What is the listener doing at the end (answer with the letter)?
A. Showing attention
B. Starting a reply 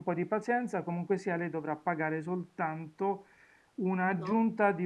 A